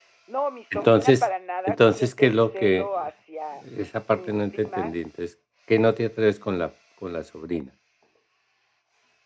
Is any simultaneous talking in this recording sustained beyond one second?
Yes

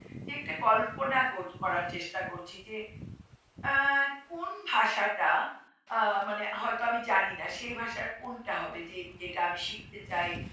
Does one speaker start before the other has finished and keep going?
No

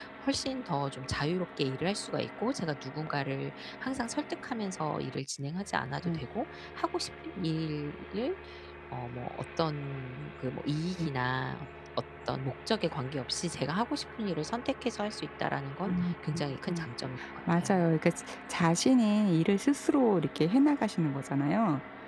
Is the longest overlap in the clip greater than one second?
No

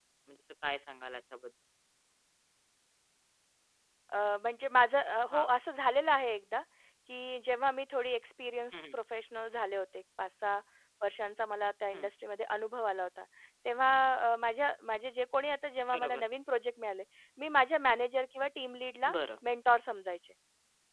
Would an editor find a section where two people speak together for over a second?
No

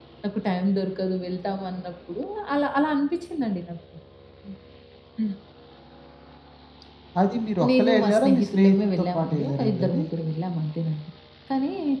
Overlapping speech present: Yes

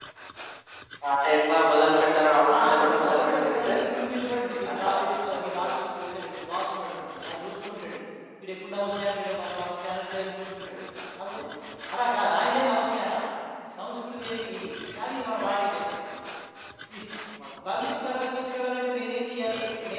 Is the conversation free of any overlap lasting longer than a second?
No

